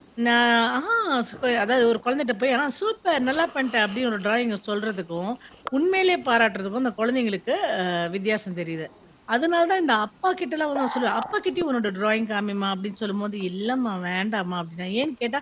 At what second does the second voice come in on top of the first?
none

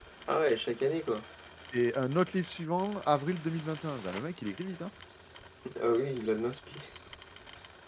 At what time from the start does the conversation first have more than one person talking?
none

